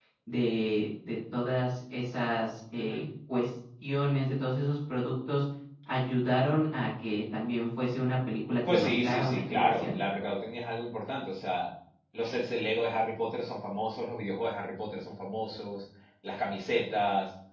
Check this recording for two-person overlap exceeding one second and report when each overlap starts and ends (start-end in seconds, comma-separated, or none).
8.7-9.9